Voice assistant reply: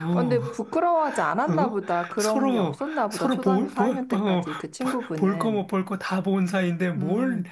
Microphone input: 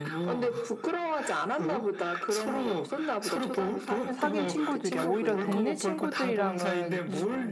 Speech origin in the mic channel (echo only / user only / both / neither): both